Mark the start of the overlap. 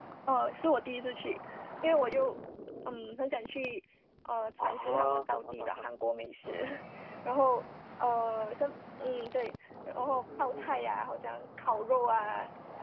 5 s

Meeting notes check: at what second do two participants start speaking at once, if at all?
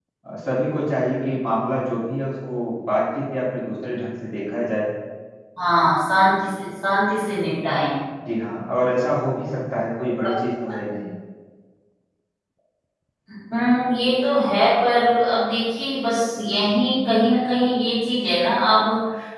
none

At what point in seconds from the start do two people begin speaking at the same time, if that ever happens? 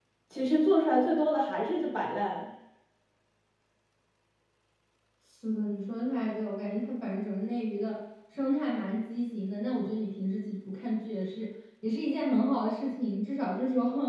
none

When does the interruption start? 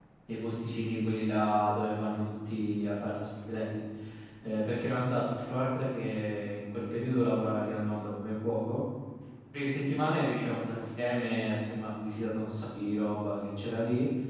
none

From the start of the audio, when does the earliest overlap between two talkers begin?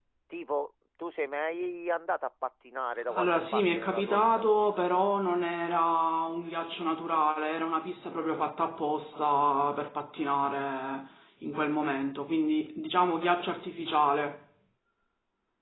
3 s

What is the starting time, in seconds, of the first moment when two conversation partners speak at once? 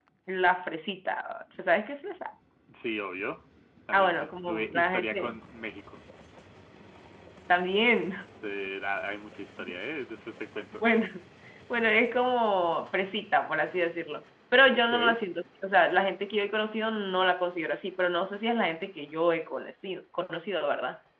4 s

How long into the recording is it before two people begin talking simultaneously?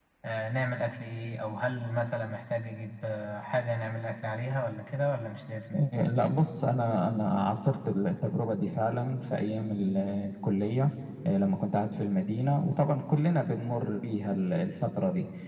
none

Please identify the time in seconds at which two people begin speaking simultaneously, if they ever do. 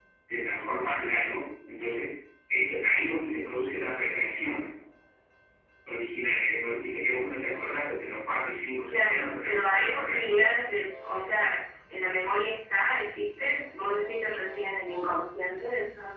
9 s

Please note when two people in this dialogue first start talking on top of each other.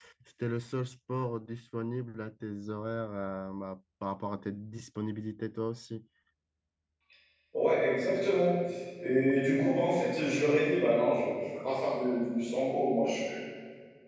none

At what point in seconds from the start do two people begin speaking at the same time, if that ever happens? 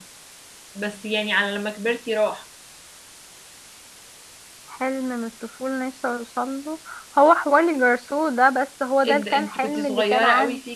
9 s

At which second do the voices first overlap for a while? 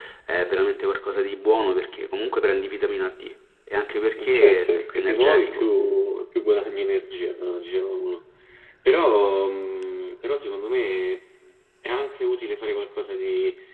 4 s

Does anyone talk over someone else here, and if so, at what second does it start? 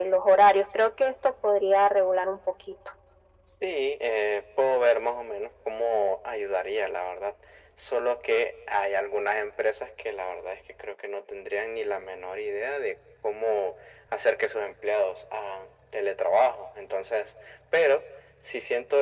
none

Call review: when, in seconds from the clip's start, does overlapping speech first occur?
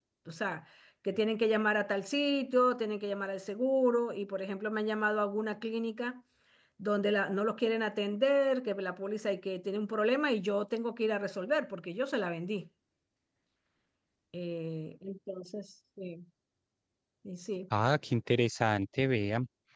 none

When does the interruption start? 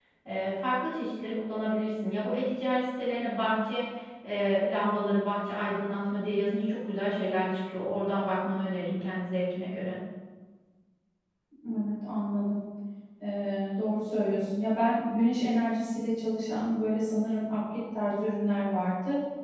none

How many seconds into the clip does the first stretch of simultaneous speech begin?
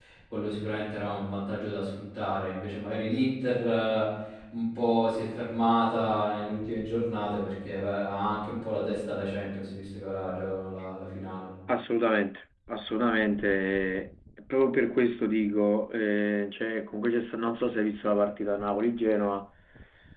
none

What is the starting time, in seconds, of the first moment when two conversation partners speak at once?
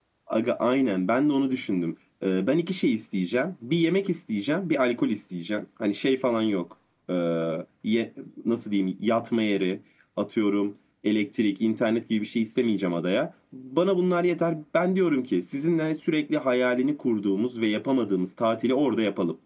none

